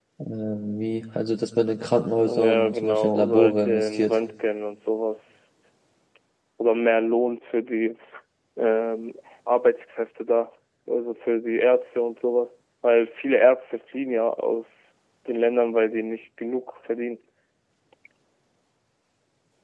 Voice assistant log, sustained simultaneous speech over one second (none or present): present